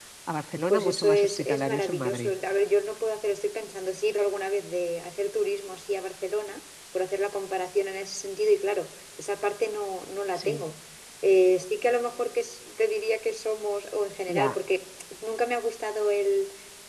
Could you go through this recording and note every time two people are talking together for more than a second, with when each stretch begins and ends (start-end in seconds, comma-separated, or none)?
0.7-2.3